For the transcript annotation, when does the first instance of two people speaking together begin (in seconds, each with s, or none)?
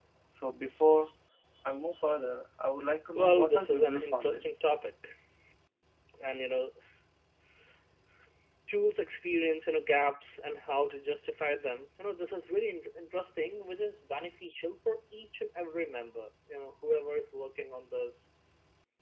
3.1 s